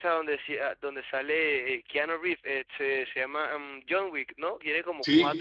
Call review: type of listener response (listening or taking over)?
listening